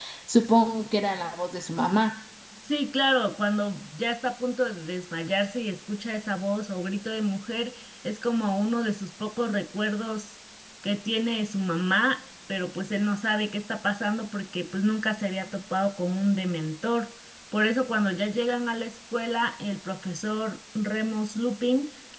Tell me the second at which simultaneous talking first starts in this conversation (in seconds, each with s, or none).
none